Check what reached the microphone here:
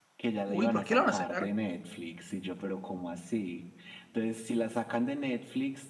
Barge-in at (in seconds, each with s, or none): 0.4 s